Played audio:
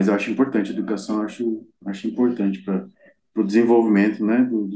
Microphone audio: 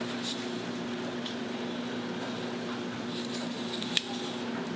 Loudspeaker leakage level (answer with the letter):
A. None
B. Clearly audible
A